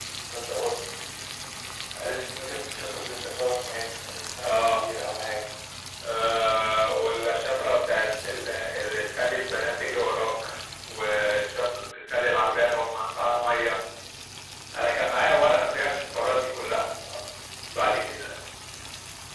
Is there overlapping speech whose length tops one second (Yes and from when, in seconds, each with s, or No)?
No